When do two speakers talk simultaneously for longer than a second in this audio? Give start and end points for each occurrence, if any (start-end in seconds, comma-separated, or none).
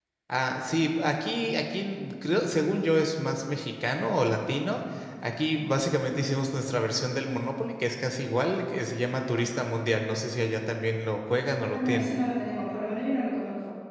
none